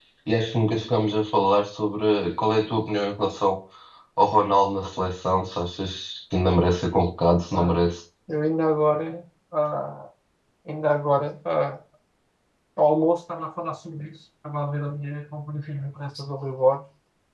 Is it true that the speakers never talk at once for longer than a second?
Yes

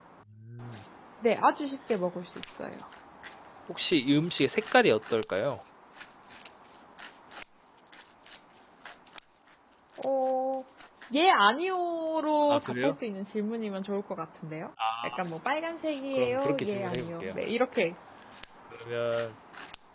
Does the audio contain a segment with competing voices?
Yes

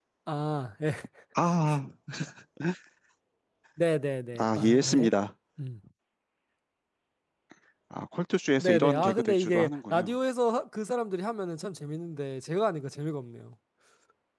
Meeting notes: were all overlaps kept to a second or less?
No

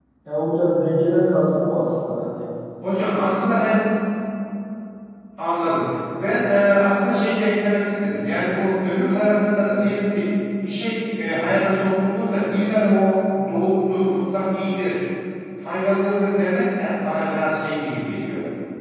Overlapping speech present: No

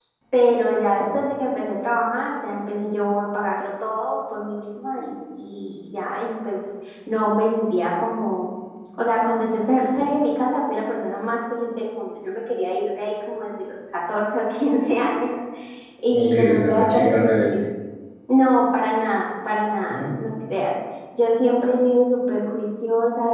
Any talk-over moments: Yes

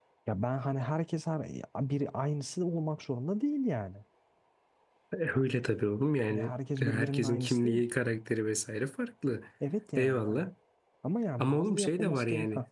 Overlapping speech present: Yes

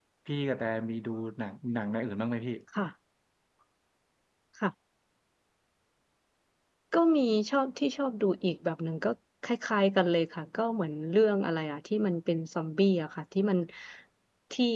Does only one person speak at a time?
Yes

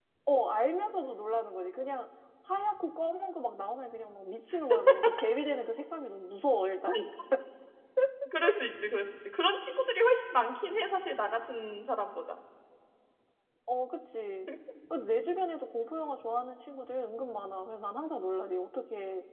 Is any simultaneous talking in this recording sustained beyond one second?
No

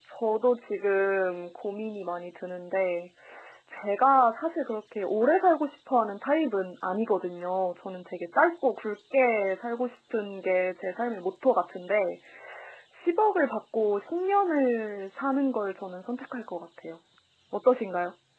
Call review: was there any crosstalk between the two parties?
No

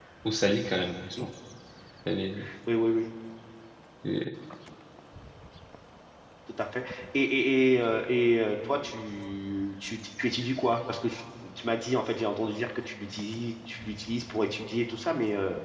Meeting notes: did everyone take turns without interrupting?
Yes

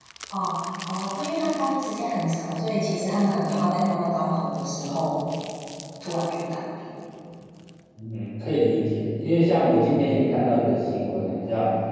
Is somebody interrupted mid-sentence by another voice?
No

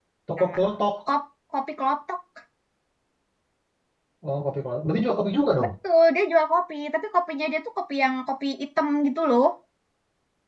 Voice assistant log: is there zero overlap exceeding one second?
Yes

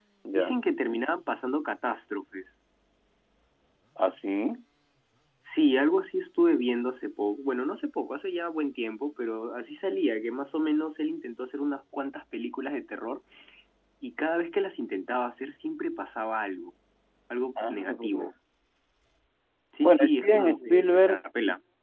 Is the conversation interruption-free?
No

